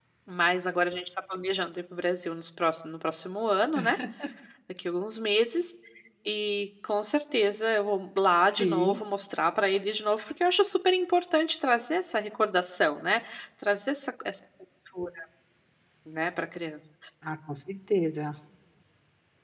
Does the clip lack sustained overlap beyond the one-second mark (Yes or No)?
Yes